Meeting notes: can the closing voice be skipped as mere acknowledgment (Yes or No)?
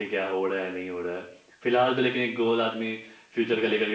Yes